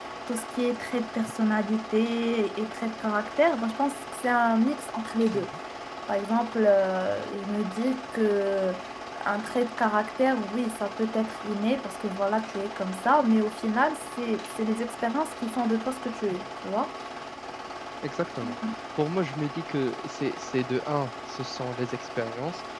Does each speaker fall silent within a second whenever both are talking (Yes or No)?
Yes